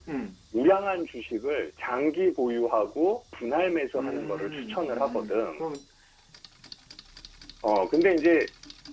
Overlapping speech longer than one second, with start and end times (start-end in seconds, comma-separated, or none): 4.0-5.6